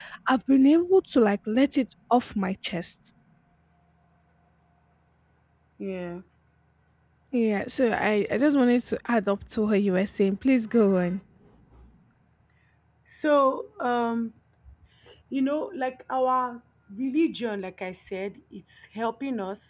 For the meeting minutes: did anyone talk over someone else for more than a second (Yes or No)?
No